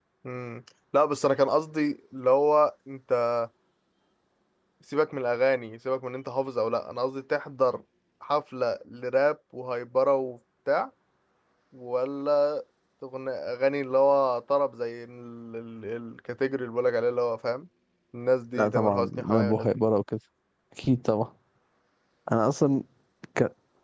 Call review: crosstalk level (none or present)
present